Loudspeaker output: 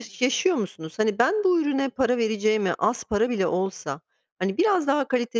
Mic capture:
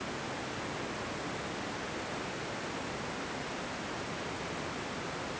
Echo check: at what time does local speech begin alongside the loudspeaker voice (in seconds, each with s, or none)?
none